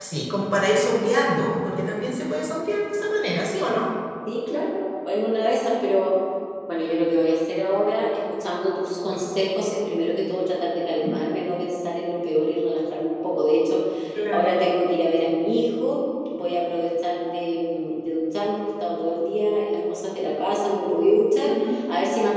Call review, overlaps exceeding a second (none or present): none